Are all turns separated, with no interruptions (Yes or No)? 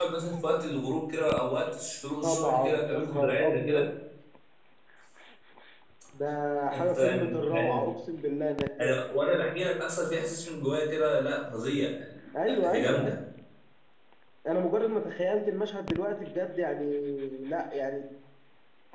No